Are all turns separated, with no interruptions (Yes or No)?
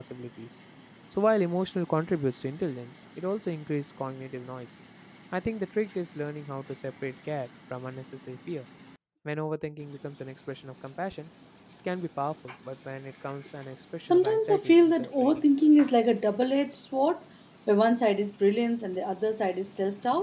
No